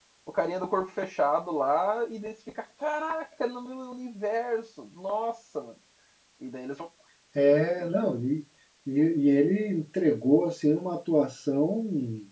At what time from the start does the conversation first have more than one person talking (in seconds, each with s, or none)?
none